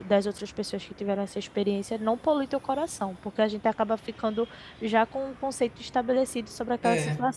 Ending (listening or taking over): listening